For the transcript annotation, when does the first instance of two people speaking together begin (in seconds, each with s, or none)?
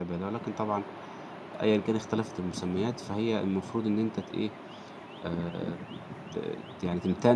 none